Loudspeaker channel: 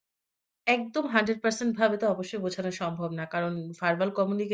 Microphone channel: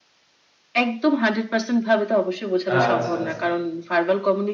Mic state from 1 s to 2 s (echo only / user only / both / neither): echo only